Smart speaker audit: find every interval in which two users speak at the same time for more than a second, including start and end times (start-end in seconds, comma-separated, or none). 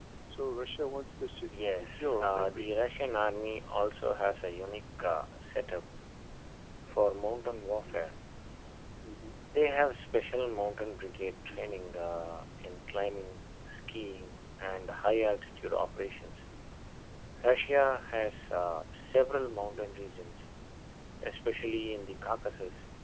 1.5-2.9